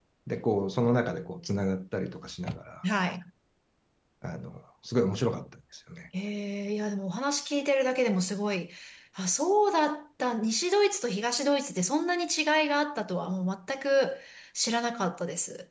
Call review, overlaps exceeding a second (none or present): none